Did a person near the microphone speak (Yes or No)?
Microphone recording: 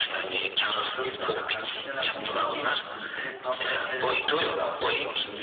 Yes